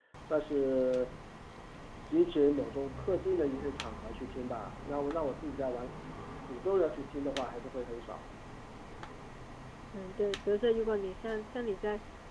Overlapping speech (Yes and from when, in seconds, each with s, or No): No